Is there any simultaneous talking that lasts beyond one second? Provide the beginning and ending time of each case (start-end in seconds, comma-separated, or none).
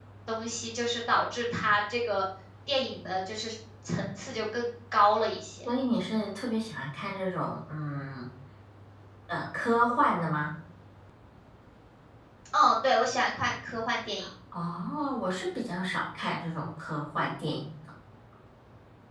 none